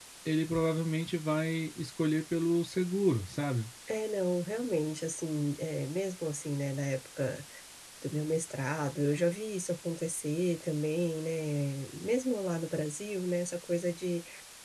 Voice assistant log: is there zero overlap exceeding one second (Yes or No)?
Yes